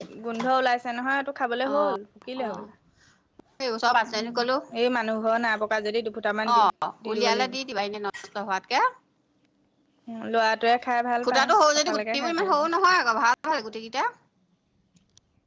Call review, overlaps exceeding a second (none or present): present